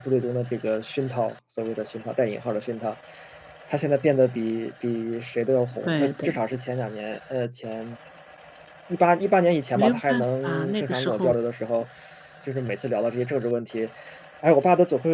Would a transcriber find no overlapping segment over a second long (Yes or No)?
No